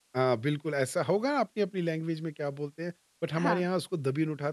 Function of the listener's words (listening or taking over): listening